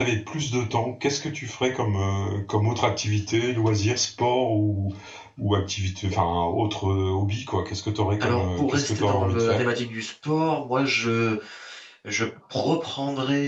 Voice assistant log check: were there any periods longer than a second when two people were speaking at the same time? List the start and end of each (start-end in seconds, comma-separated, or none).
8.2-9.6